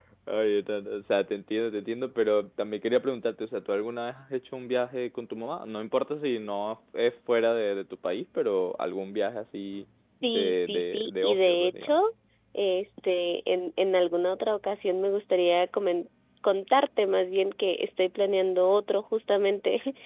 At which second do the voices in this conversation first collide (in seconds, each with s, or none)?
10.2 s